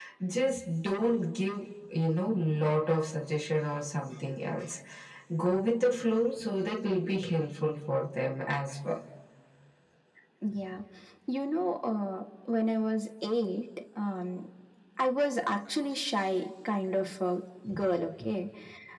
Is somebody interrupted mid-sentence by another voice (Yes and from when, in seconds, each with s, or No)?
No